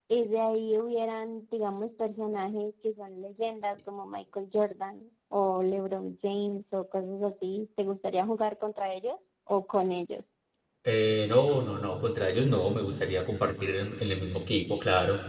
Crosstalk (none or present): none